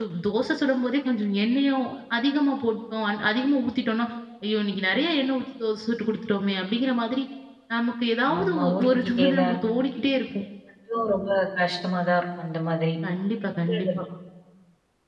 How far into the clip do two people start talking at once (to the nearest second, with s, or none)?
8 s